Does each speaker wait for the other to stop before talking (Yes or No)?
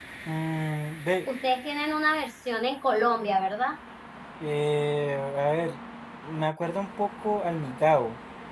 Yes